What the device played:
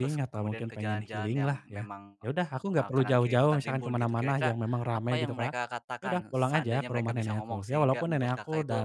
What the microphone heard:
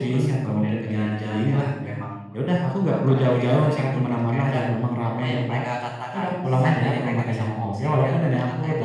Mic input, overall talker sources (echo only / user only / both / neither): echo only